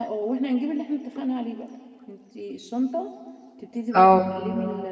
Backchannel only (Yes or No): Yes